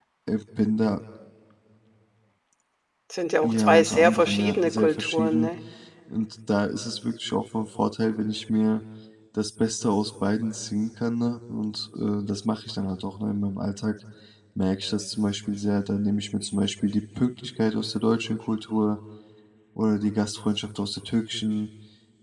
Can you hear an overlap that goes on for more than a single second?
Yes, from 3.4 s

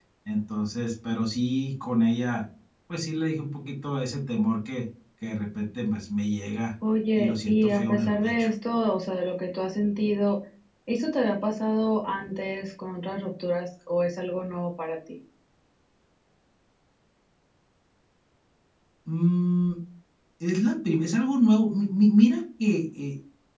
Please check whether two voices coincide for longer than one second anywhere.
Yes, from 7.2 s

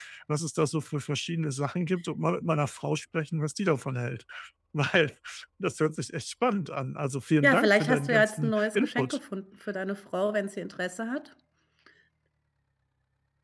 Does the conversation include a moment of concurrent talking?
Yes, from 7.4 s

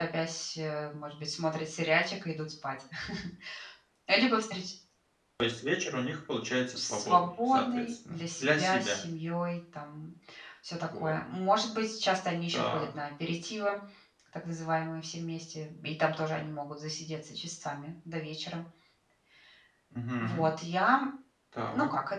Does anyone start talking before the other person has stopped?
Yes, from 6.8 s

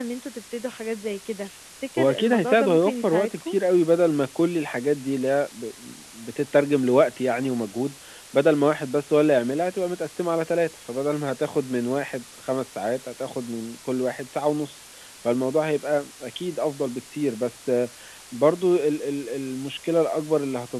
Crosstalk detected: Yes, from 2.0 s

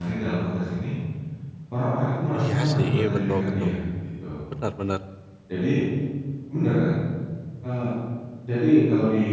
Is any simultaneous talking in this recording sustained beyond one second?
Yes, from 2.4 s

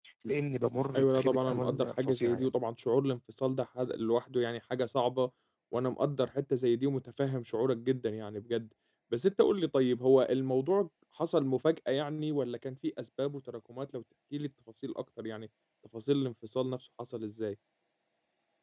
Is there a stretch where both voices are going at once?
Yes, from 1.0 s

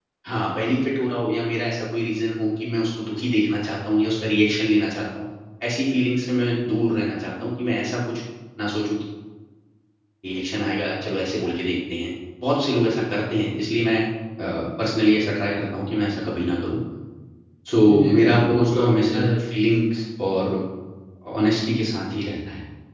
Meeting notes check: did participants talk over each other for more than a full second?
Yes, from 17.8 s

